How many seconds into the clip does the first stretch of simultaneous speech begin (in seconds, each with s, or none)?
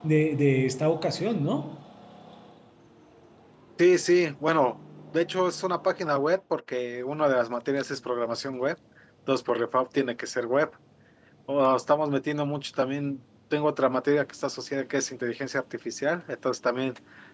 none